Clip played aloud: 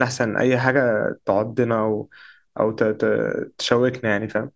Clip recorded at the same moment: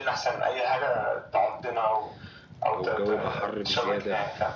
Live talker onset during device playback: 3 s

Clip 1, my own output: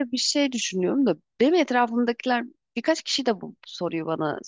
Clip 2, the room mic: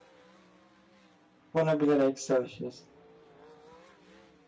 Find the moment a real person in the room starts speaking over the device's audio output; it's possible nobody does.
2 s

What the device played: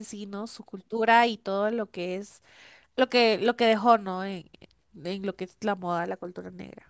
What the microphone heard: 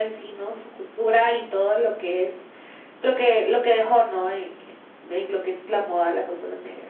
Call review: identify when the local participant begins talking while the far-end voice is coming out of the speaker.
none

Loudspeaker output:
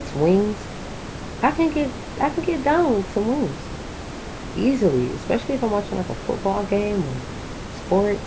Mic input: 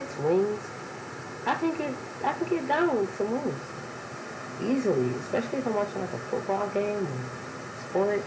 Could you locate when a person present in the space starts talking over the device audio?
none

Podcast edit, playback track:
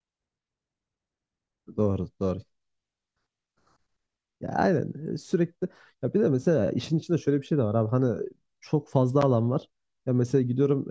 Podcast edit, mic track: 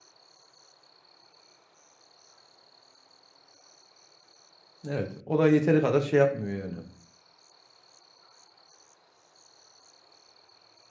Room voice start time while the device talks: 5 s

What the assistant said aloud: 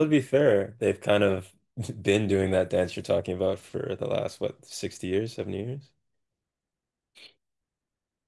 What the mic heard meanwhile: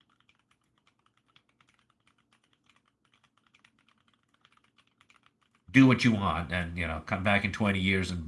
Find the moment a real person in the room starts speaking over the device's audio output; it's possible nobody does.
6 s

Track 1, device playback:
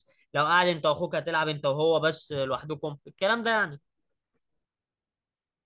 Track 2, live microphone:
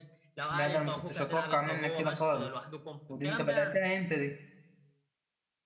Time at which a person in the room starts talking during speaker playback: 1 s

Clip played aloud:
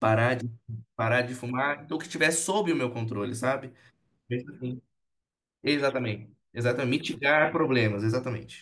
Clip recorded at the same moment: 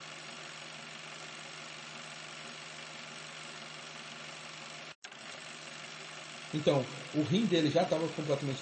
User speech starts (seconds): 7 s

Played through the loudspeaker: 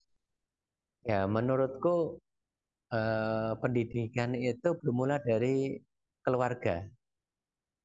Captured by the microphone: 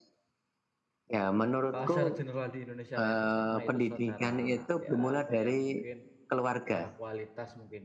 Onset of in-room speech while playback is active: 2 s

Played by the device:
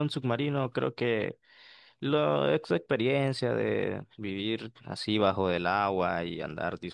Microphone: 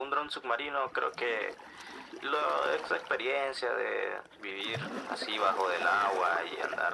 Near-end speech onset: none

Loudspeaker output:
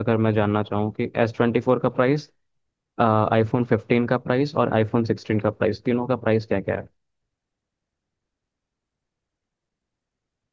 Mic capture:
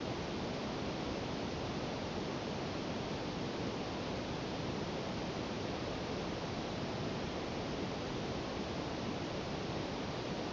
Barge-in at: none

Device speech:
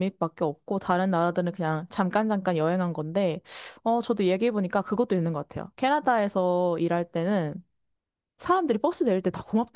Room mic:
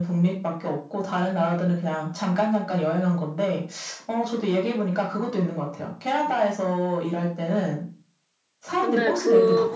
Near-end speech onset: 9 s

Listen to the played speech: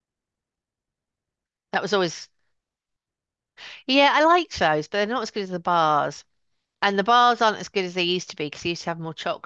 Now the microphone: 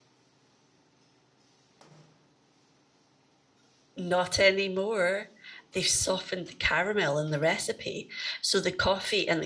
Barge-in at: 4 s

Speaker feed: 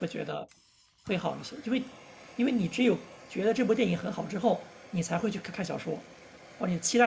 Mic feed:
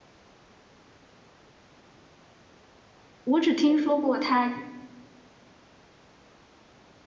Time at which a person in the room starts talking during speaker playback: 3 s

